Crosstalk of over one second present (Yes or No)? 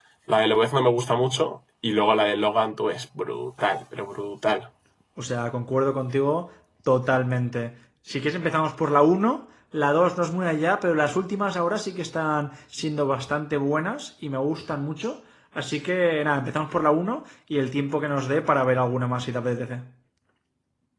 No